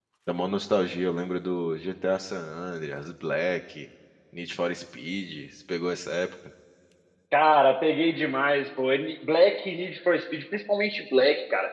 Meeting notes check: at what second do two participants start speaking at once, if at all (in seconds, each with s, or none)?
none